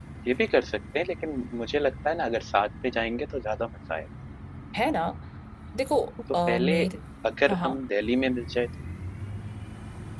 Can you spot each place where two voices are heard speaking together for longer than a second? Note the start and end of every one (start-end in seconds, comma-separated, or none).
none